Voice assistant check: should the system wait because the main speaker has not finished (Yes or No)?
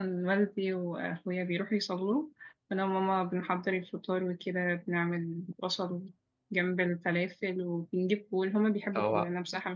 Yes